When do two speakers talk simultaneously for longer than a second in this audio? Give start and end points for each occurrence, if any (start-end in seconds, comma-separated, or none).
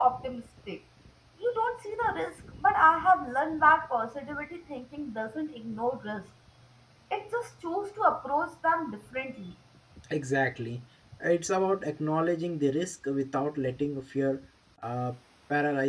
none